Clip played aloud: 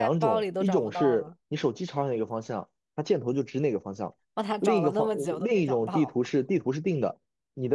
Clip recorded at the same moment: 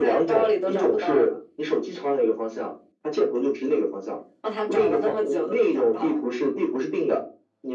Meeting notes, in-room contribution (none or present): none